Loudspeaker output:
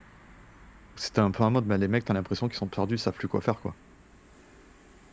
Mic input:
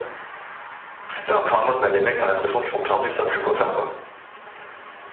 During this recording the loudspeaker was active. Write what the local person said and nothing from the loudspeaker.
none

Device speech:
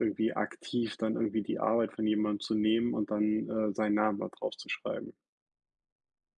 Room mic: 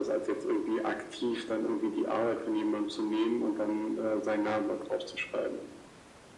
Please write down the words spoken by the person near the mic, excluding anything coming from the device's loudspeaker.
none

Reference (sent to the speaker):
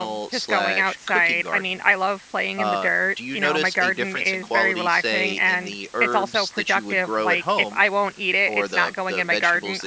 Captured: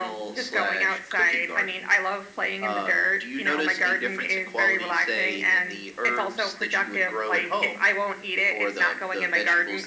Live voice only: none

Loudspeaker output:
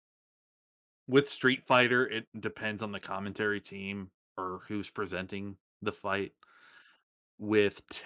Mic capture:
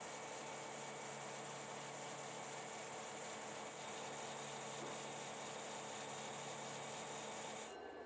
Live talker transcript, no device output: none

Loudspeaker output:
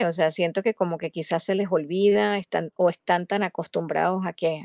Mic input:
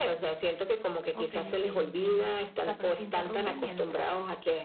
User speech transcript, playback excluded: Ok, ok, entiendo. O sea, pero te interrumpe mientras

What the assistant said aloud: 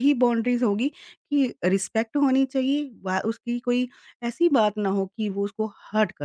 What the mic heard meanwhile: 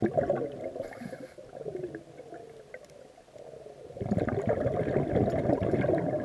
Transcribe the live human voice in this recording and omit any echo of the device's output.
none

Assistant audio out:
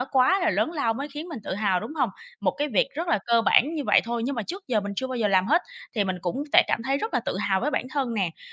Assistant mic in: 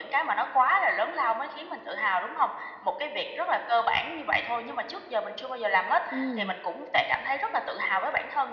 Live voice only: ừm,

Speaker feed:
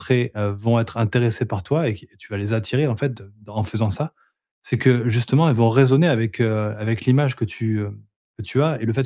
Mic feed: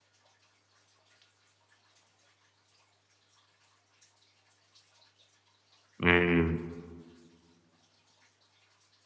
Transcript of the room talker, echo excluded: mmh,

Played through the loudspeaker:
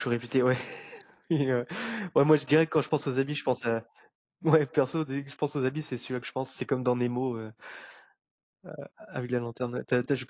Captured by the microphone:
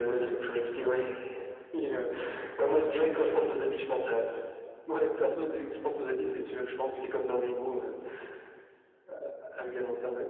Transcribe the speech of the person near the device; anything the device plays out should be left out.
none

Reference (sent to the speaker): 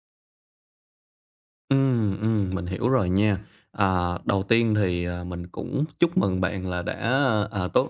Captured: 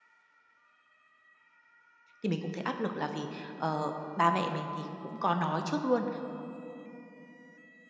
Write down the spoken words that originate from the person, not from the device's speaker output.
thì mình cũng thấy áp lực là vì, ờ, ba mẹ mình thì cũng có nói trước luôn

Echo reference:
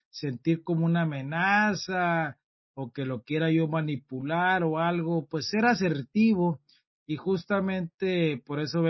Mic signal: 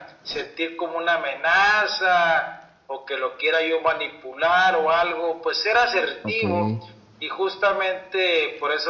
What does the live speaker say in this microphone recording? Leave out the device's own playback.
okey,

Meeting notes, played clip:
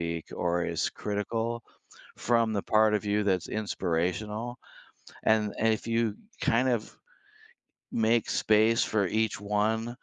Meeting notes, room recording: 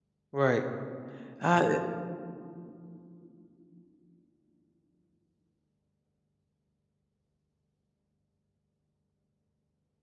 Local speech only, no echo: Right. Uh,

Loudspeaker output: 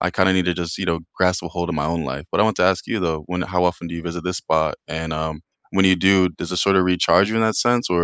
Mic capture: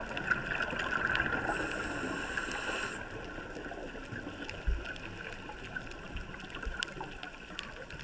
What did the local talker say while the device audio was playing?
none

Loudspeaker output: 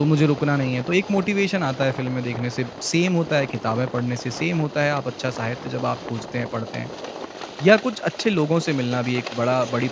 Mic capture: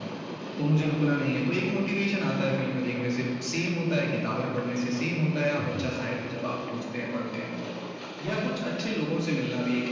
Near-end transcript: जी,

